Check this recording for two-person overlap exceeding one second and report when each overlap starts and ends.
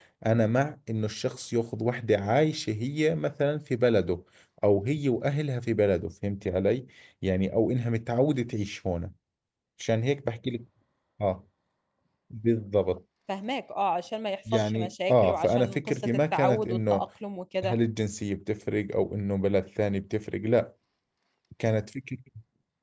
14.5-17.0

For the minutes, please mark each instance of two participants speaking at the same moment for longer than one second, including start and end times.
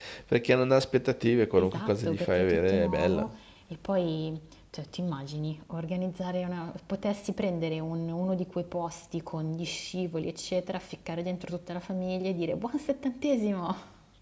1.6-3.2

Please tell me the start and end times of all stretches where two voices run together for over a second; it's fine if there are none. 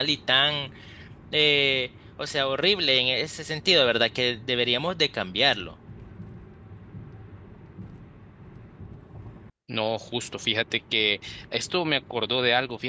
none

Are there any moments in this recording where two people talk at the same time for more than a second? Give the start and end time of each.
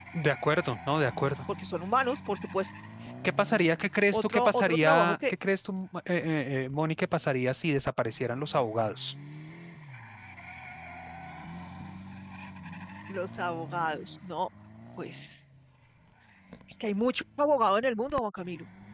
4.1-5.3

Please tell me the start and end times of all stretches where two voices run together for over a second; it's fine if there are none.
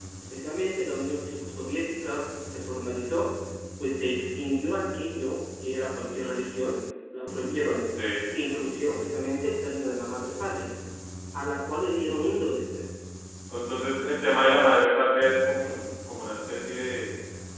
none

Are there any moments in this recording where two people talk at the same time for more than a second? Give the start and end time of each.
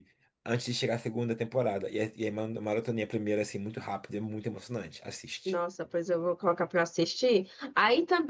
none

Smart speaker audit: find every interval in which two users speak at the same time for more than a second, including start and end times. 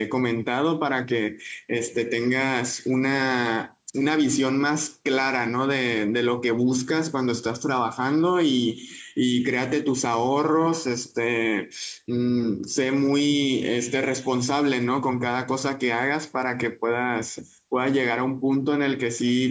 none

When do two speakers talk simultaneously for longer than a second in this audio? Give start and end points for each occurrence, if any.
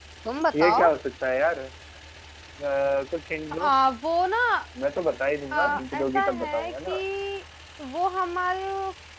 5.5-7.0

